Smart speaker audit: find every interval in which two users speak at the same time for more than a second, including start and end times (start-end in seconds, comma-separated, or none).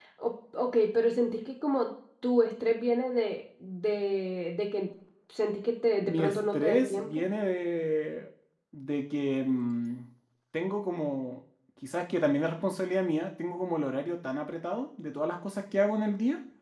6.0-7.2